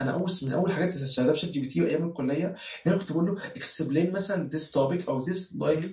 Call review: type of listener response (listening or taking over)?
listening